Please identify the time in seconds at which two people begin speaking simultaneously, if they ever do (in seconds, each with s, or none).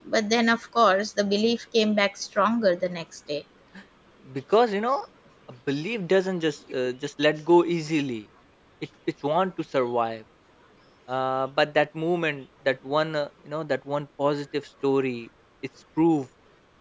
none